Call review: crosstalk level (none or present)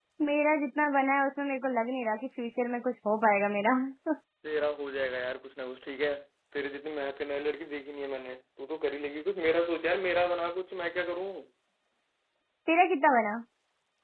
none